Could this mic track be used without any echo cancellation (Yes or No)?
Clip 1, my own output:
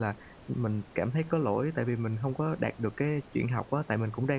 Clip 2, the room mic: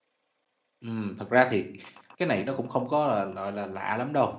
Yes